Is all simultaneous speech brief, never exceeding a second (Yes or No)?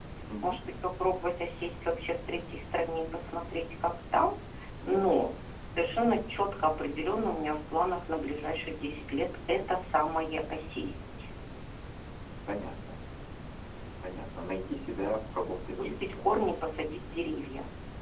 Yes